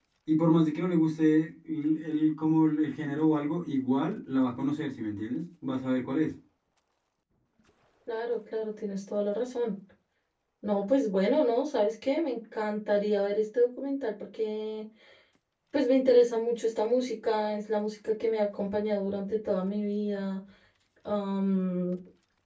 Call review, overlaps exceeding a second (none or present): none